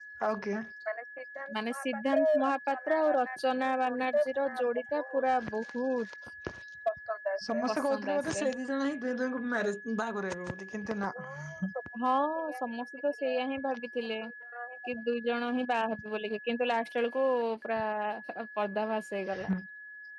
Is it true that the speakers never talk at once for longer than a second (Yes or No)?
No